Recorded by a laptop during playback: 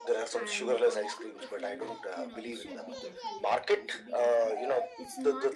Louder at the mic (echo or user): echo